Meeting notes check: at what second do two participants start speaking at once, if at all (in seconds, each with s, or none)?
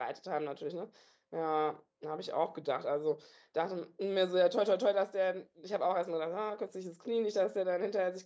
none